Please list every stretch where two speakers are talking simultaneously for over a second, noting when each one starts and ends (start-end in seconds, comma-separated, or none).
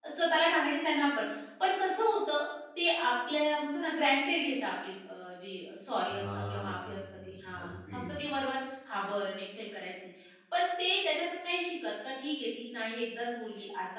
6.2-8.0